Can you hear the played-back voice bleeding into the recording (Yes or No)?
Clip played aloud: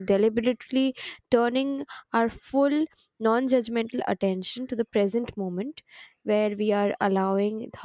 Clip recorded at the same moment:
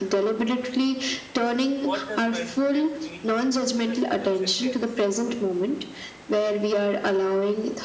Yes